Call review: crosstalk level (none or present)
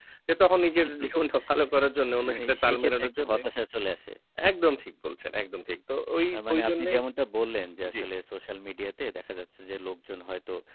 present